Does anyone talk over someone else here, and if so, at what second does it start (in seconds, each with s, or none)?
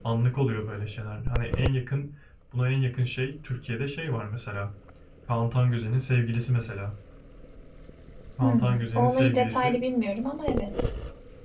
8.4 s